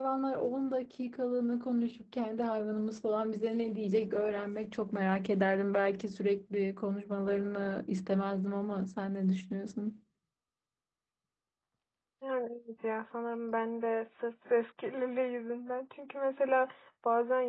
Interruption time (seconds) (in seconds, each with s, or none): none